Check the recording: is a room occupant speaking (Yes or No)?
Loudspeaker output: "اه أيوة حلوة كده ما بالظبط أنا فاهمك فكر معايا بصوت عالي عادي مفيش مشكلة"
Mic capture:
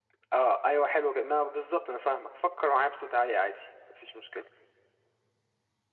No